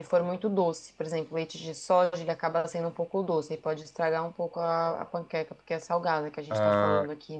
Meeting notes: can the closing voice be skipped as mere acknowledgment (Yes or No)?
No